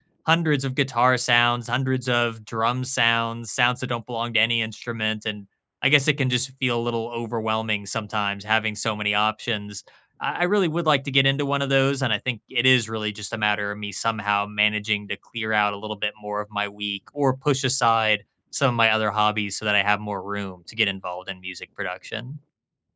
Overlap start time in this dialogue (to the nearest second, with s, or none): none